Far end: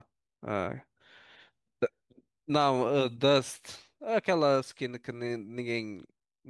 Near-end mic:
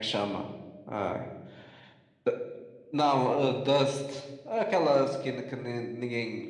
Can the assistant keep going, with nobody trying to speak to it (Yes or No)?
Yes